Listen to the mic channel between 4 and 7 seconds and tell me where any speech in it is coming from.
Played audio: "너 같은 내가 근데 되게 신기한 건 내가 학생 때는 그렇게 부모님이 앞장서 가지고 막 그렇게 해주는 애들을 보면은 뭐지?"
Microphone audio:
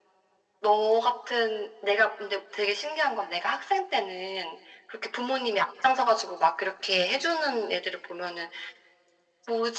echo only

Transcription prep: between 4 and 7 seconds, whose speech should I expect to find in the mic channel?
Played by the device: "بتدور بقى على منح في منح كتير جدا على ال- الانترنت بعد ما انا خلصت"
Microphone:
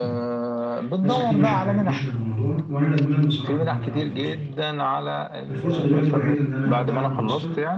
both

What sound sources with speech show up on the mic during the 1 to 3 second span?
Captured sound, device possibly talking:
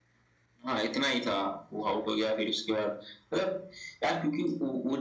echo only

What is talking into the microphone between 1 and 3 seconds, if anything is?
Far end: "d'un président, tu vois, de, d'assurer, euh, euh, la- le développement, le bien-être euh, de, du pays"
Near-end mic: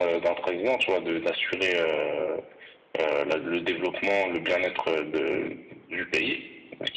echo only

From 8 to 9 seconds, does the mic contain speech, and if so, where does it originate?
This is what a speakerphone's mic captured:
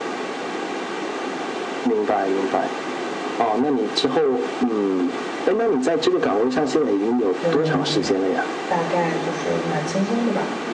both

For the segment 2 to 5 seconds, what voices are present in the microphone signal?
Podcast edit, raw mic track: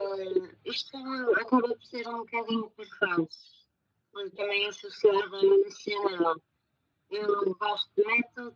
echo only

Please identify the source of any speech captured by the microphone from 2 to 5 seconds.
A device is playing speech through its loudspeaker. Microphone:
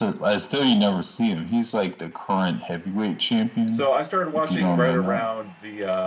both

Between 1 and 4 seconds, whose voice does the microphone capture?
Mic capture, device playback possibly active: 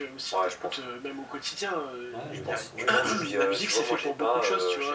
both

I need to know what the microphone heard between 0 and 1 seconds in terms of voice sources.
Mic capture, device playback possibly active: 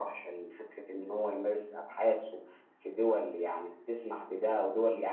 echo only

